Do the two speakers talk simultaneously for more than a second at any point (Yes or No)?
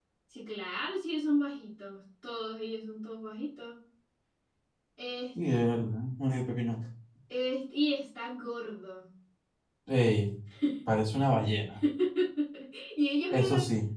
No